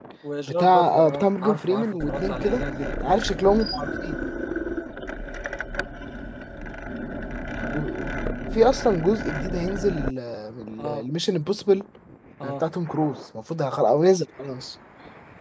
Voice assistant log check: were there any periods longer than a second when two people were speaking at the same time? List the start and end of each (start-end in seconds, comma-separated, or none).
0.6-2.6